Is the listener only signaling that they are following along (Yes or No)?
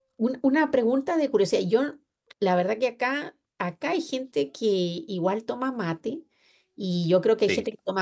Yes